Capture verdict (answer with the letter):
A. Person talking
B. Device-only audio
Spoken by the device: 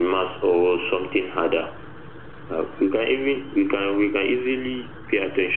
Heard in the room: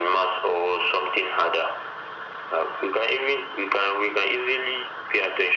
B